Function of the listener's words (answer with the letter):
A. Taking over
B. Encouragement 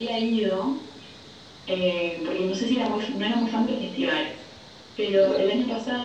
B